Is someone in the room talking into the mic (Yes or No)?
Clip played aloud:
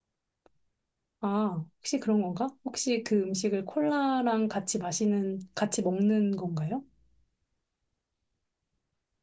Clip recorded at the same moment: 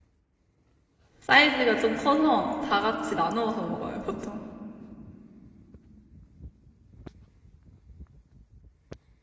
Yes